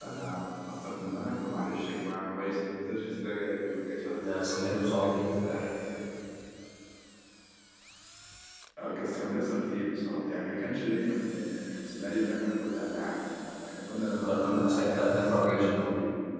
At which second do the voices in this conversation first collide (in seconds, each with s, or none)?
4.2 s